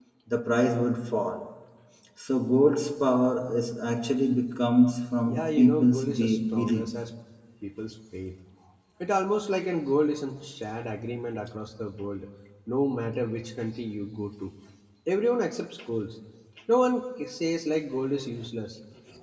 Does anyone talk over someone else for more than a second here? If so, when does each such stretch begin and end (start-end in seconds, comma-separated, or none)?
5.2-7.0